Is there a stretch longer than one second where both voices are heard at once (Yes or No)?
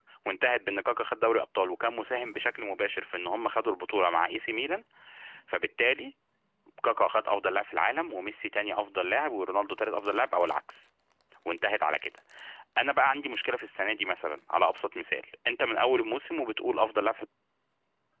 No